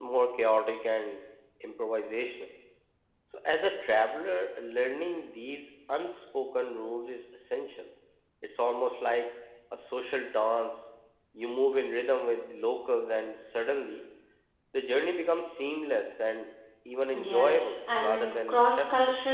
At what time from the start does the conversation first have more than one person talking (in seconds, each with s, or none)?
17.1 s